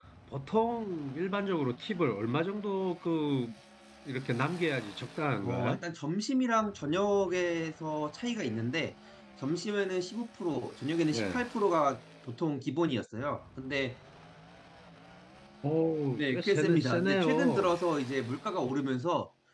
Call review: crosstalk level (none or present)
present